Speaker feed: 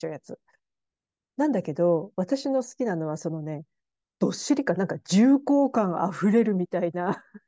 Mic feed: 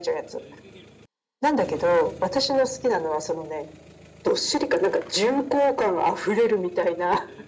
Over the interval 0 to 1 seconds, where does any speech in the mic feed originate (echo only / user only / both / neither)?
echo only